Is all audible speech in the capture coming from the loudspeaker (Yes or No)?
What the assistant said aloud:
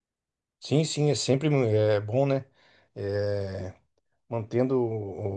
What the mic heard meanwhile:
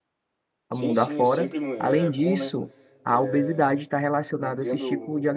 No